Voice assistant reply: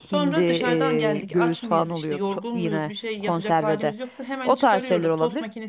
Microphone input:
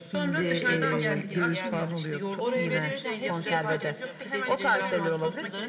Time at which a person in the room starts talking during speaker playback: 0.3 s

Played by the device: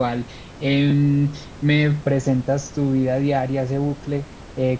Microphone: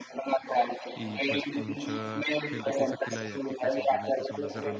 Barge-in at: 0.9 s

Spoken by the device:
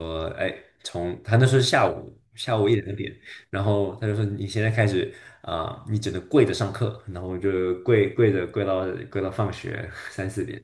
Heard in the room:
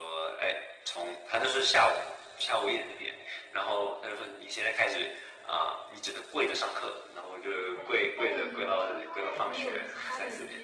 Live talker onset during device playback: 7.7 s

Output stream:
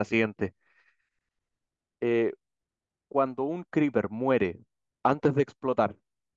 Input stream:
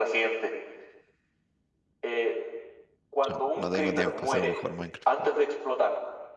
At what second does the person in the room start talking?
3.3 s

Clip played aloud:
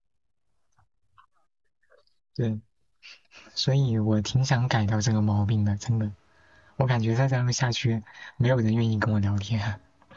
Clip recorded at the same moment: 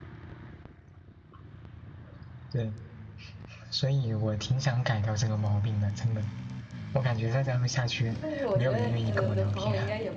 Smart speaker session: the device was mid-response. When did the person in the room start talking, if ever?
8.2 s

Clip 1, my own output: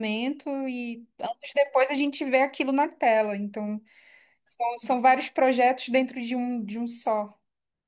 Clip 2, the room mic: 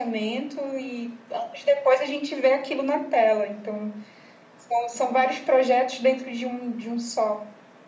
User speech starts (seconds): none

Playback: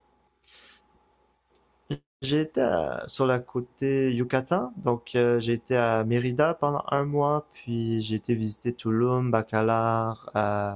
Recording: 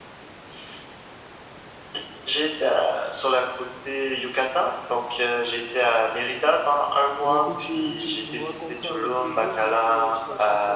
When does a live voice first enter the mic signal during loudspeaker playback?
7.2 s

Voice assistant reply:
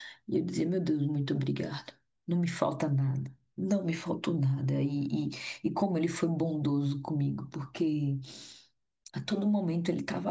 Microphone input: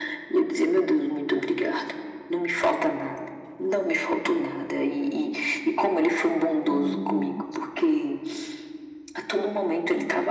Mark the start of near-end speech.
6.7 s

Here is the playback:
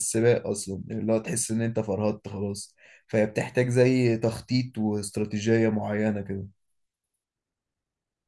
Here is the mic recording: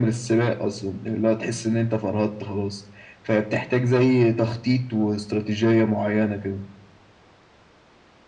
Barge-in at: none

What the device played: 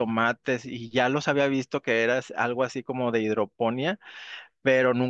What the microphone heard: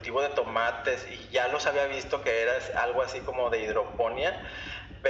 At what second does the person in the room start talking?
none

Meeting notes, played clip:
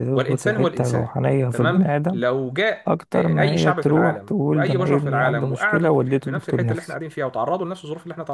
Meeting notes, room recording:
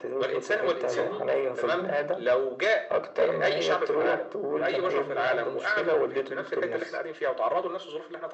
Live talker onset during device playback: 0.8 s

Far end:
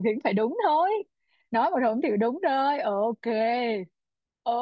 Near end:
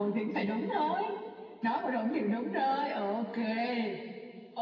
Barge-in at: none

